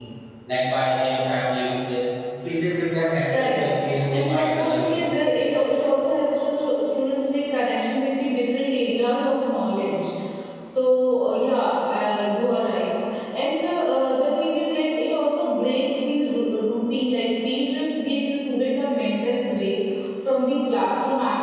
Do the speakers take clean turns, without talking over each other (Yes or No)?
No